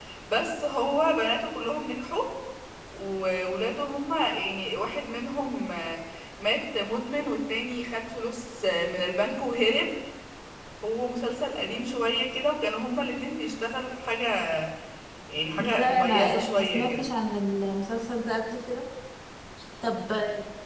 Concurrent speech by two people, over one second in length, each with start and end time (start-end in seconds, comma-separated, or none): 15.6-17.1